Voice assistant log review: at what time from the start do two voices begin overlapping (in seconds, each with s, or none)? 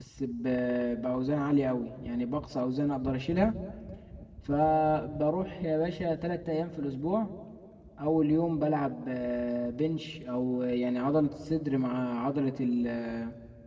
none